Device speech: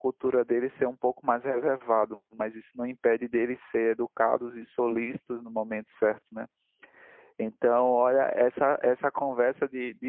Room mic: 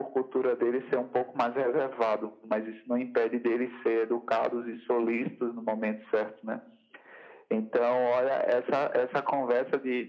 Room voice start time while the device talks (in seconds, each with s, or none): none